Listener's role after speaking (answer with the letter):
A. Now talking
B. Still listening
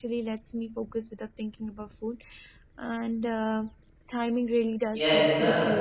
A